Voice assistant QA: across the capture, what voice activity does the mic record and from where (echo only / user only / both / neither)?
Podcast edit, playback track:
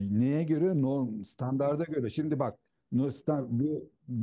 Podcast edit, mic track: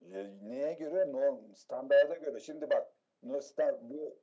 echo only